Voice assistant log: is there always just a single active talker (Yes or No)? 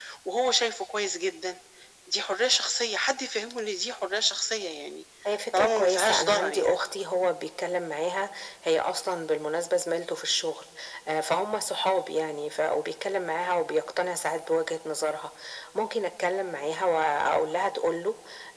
No